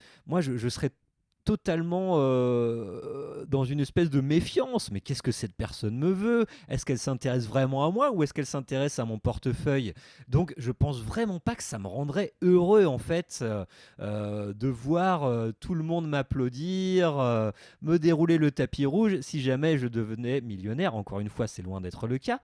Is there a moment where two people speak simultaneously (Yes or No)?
No